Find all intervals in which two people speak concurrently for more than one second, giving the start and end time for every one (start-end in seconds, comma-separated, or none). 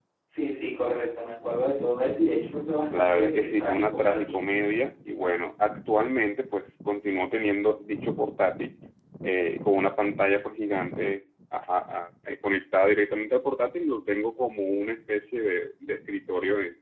2.9-4.4